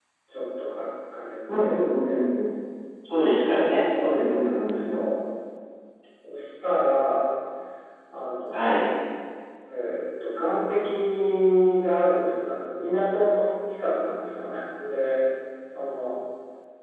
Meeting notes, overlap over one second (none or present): present